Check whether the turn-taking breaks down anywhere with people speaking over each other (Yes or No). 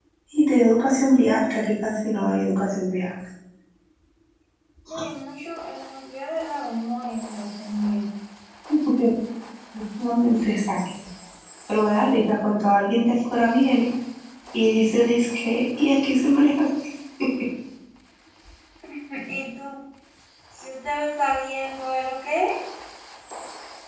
No